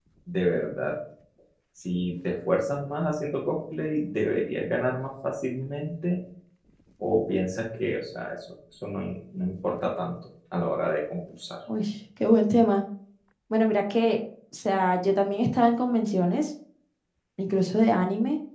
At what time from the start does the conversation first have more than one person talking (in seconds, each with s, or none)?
none